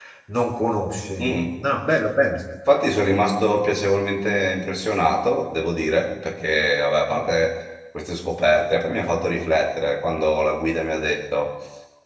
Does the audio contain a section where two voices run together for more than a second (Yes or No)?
No